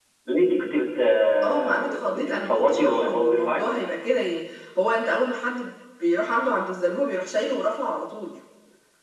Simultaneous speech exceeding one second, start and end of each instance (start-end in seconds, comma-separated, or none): 1.4-3.6